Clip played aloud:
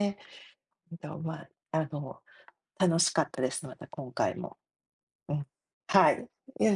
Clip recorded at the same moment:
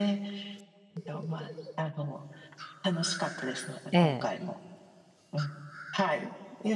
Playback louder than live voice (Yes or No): No